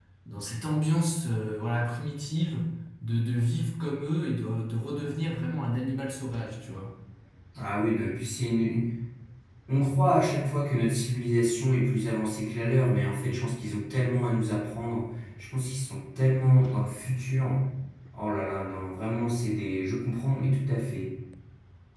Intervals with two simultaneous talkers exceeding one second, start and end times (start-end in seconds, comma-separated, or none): none